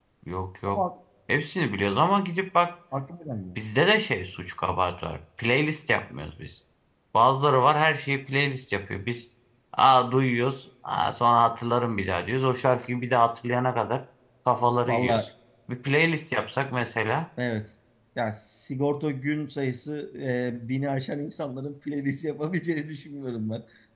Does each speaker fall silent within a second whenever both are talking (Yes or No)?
Yes